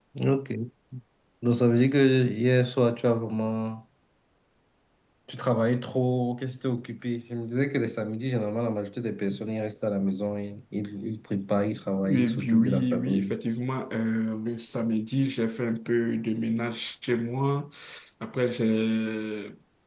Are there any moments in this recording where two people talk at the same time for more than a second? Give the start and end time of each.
12.0-13.3

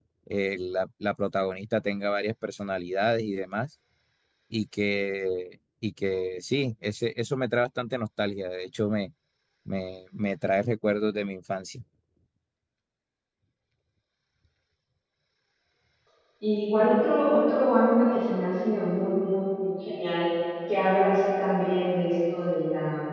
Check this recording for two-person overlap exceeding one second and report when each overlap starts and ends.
none

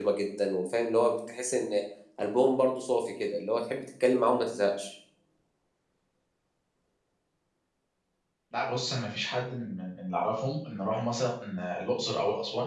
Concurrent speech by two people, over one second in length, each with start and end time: none

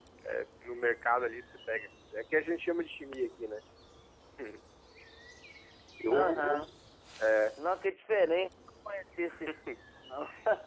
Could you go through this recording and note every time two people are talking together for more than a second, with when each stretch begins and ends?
none

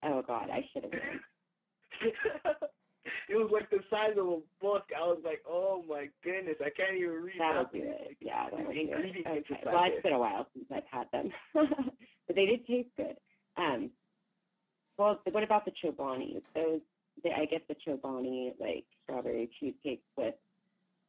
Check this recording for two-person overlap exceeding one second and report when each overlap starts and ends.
7.4-10.1

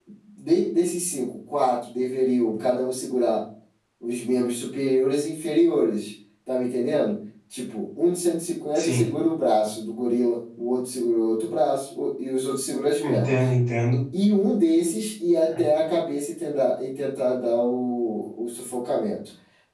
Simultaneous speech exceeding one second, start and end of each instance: none

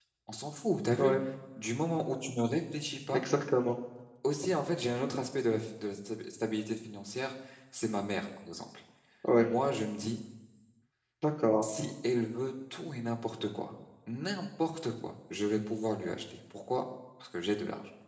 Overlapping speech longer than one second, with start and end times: none

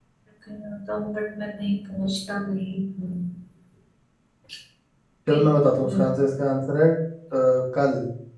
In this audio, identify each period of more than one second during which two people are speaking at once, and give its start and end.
none

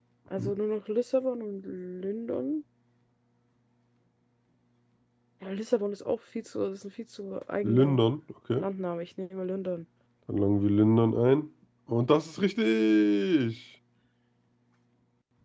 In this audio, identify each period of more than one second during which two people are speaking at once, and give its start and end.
none

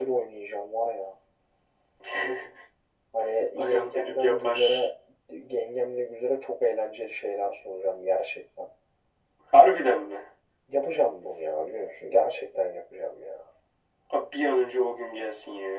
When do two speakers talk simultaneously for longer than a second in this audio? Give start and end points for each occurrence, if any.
3.6-4.9

